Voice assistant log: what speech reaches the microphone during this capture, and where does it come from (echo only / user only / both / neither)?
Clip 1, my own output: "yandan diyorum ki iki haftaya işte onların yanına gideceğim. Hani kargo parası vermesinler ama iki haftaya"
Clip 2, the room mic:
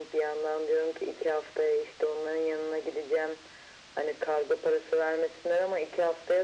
echo only